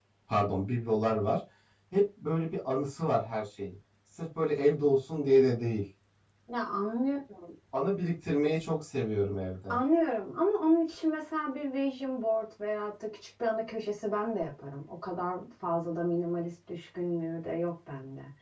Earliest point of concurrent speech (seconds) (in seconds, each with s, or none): none